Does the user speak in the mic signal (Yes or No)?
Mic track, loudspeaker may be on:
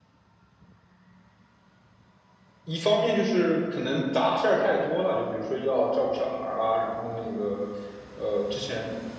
Yes